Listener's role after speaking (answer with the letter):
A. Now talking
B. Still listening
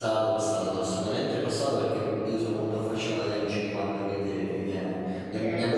A